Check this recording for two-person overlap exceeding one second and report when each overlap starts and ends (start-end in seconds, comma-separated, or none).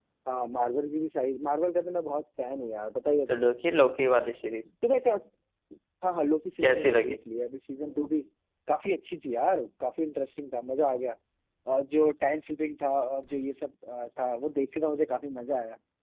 none